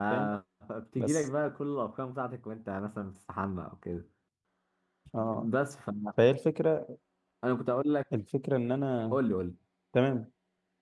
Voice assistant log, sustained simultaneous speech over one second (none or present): none